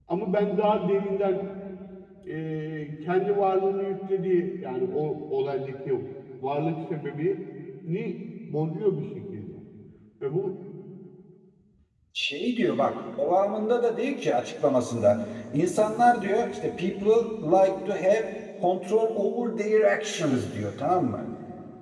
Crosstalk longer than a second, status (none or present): none